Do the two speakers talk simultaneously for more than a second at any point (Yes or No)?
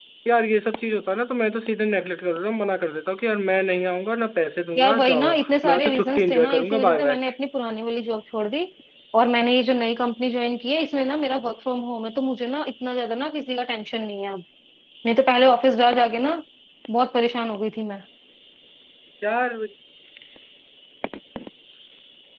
Yes